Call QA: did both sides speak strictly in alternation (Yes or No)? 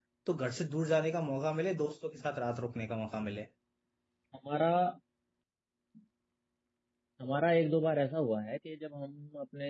Yes